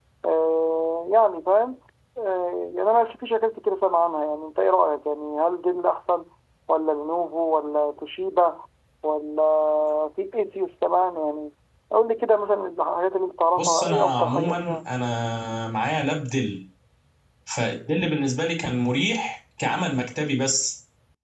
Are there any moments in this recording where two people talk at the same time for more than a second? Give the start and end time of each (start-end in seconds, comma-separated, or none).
13.6-14.8